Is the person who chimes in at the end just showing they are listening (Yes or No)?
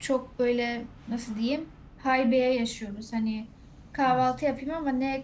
Yes